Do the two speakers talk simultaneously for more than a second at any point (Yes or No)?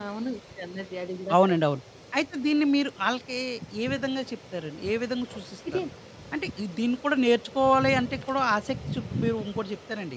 No